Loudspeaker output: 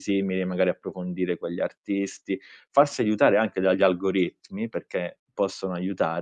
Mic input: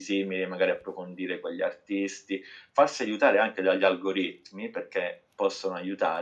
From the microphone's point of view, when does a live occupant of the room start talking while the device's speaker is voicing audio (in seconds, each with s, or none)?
none